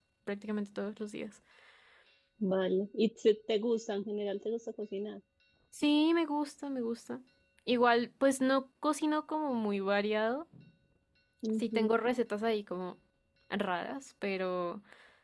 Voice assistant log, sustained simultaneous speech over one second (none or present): none